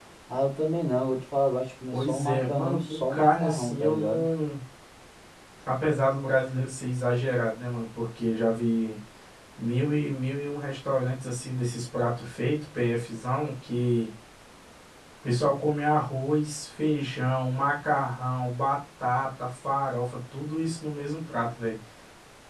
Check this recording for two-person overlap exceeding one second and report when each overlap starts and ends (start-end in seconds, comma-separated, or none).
1.9-4.2